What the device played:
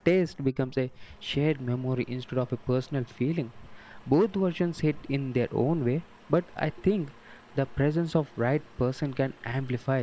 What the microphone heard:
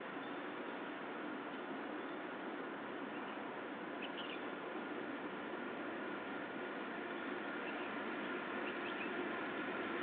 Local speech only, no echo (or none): none